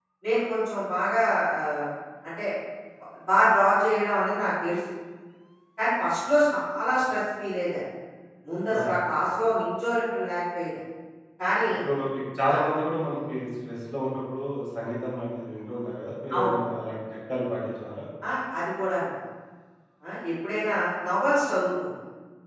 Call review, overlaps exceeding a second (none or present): none